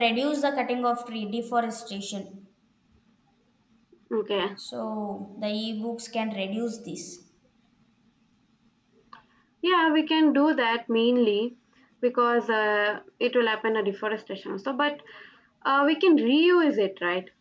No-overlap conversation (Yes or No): Yes